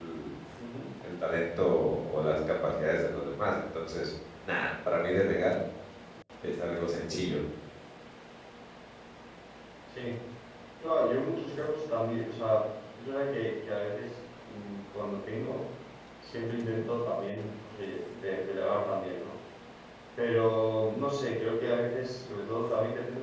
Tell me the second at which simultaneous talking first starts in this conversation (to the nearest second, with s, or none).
none